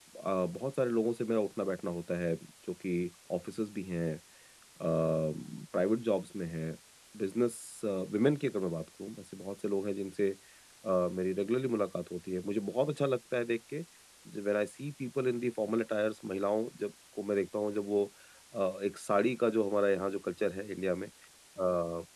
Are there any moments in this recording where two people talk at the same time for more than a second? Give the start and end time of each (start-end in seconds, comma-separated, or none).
none